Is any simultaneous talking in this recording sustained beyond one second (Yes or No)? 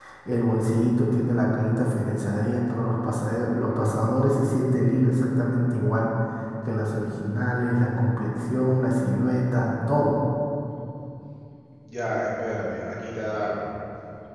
No